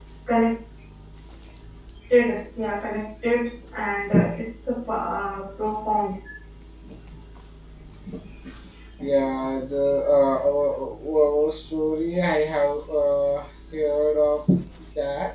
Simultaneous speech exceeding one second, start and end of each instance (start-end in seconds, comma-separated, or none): none